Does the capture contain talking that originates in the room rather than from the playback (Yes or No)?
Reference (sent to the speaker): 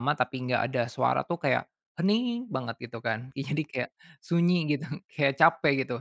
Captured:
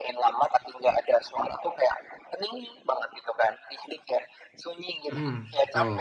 Yes